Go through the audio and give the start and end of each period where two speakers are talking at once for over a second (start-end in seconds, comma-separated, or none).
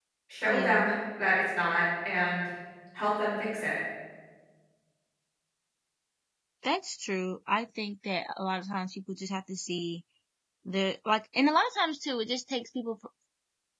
none